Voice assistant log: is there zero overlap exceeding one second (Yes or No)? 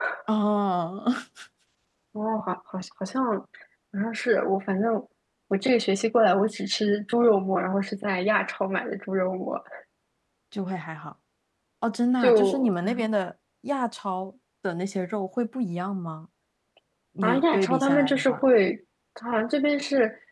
No